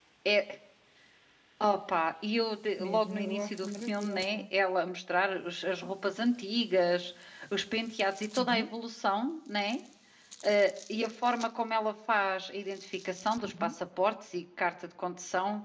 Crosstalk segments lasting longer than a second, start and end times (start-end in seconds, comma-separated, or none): 2.8-4.4